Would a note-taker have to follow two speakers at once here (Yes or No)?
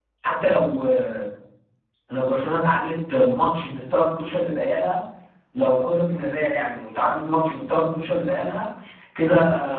No